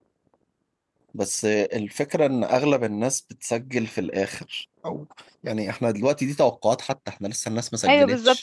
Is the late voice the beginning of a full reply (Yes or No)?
Yes